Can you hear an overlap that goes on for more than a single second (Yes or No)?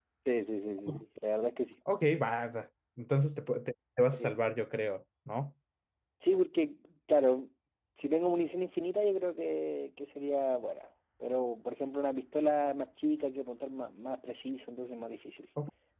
No